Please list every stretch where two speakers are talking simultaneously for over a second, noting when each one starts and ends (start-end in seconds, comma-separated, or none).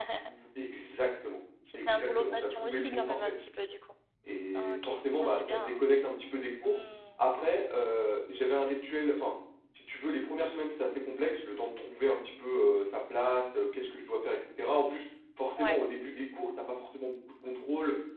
1.7-3.3, 4.5-5.8